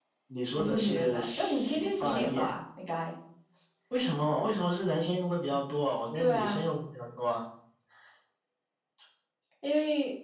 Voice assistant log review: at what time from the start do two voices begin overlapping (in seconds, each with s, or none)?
0.6 s